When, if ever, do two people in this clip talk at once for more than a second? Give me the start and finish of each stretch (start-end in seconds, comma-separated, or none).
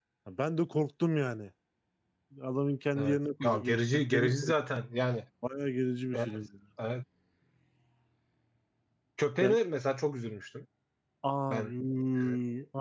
3.0-4.5